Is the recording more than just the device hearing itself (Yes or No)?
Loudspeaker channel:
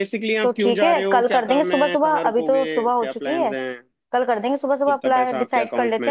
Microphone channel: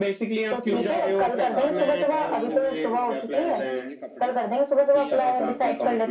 Yes